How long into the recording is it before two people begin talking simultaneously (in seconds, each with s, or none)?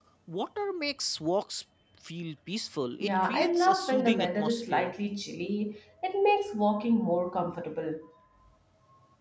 3.0 s